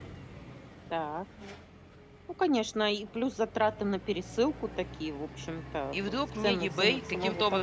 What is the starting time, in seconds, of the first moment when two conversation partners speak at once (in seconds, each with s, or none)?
5.9 s